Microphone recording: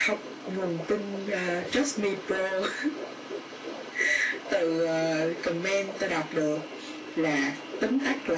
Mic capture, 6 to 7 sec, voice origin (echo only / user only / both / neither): echo only